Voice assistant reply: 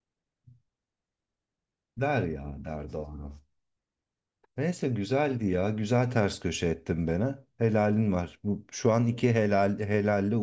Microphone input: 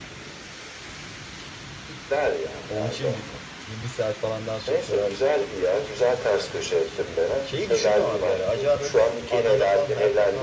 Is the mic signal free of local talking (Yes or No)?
No